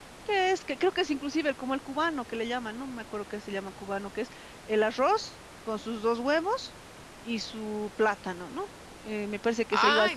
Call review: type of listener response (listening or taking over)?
listening